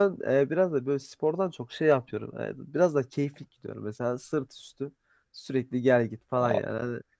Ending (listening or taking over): listening